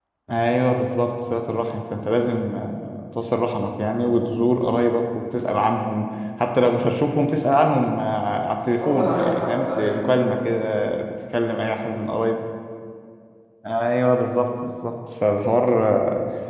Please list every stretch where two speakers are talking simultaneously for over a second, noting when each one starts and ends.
8.8-10.3

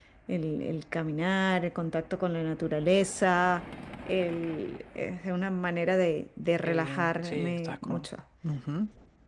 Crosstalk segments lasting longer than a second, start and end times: 6.6-8.1

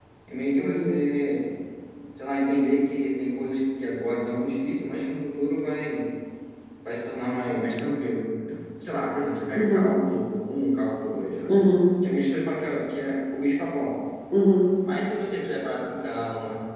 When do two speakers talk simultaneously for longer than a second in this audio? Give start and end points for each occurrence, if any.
none

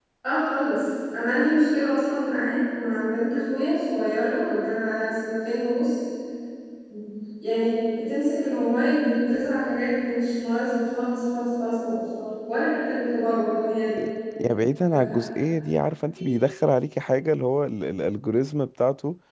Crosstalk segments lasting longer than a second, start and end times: none

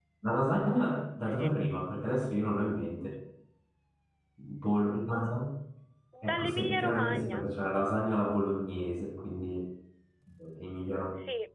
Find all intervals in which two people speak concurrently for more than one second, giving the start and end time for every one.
6.2-7.4

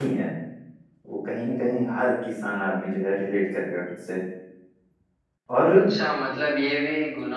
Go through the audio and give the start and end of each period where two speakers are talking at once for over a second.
none

